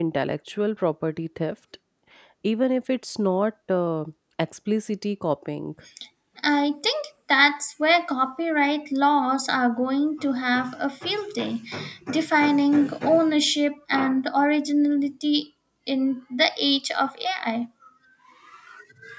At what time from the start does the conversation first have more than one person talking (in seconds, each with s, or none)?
none